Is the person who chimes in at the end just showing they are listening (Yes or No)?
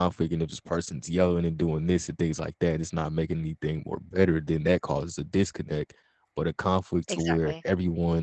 Yes